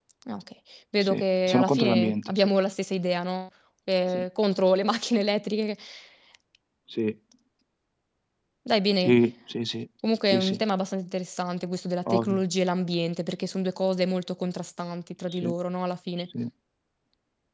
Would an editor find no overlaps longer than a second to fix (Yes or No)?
No